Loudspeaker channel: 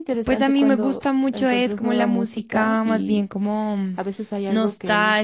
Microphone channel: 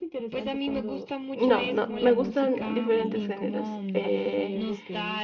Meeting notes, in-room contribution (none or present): present